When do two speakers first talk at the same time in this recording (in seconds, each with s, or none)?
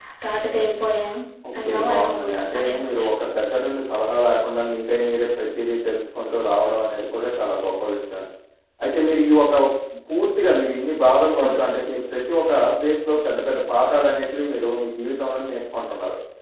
1.6 s